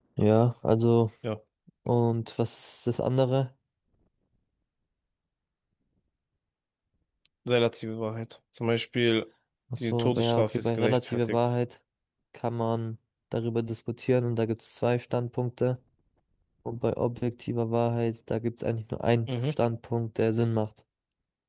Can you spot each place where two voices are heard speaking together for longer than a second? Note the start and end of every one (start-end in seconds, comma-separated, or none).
9.8-11.4